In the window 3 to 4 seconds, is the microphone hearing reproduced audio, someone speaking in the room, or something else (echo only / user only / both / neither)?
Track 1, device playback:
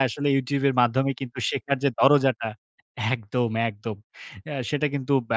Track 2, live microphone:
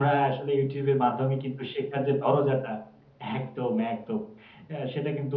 echo only